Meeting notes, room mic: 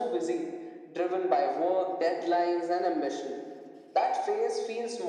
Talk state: echo only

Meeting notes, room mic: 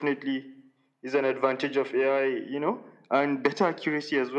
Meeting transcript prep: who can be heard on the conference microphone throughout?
echo only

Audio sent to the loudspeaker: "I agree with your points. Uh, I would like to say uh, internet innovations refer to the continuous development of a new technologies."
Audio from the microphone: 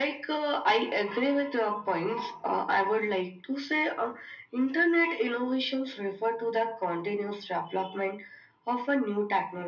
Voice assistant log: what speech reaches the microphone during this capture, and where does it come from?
echo only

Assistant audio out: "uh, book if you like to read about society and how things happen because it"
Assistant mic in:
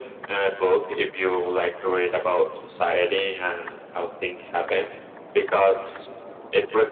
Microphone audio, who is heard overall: echo only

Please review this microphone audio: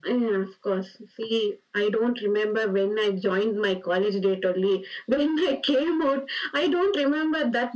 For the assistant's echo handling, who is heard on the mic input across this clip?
echo only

